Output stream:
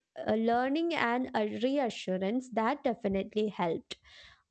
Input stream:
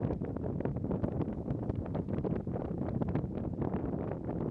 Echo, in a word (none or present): none